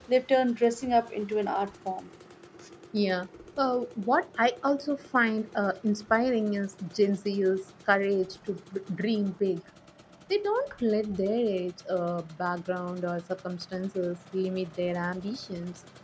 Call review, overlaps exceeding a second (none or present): none